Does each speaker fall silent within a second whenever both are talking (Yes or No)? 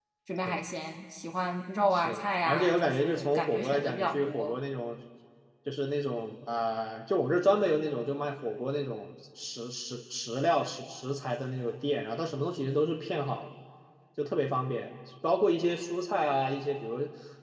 No